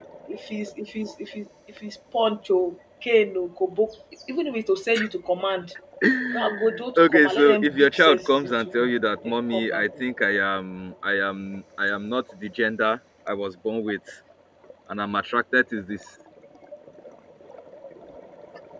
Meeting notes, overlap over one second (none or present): present